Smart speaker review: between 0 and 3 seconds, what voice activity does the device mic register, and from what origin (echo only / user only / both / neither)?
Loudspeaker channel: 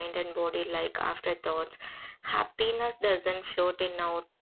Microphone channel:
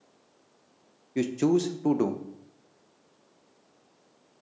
user only